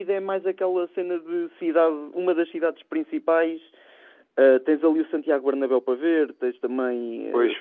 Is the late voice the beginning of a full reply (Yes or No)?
Yes